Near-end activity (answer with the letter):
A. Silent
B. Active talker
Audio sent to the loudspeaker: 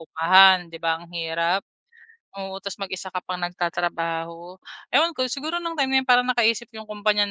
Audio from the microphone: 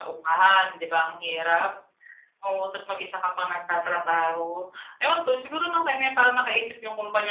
A